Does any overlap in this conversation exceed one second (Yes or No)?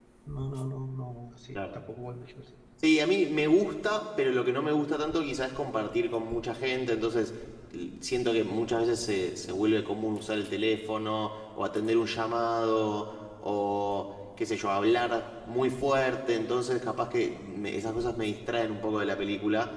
No